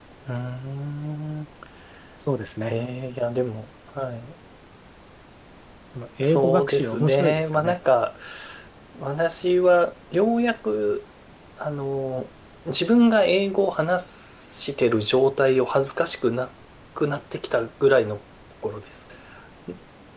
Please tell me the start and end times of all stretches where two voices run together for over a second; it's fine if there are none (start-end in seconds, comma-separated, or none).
6.2-7.8